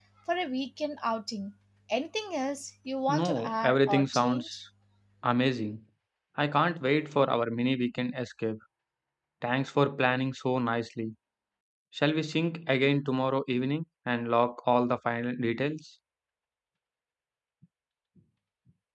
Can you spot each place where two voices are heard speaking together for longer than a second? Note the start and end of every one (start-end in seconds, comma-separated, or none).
3.1-4.6